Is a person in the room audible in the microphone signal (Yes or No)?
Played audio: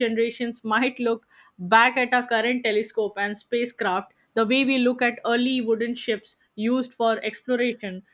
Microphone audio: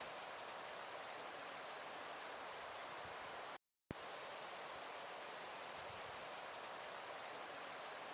No